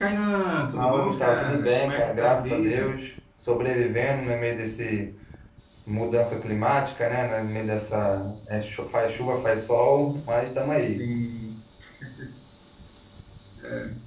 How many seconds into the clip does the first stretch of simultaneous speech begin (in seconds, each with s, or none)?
0.8 s